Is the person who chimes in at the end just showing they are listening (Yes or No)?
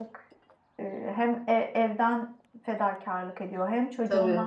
Yes